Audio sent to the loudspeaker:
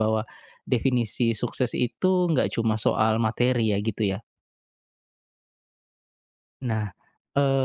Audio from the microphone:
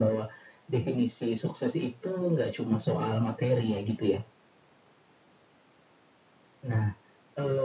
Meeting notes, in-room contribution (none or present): none